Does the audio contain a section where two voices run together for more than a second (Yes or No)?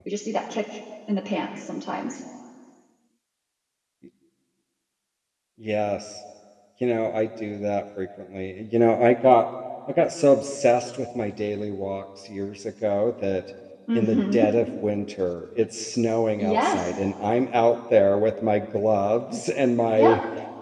No